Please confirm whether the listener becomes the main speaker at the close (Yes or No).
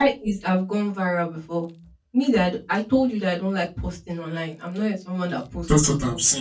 Yes